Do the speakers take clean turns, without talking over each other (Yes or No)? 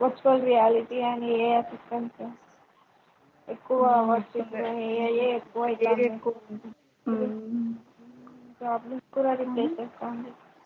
No